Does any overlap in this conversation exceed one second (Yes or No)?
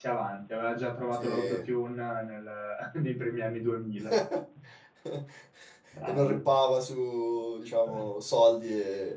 No